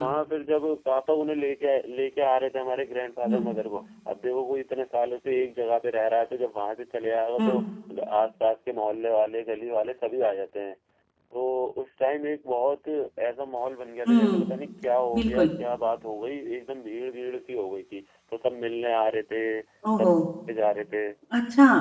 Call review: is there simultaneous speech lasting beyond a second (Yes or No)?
No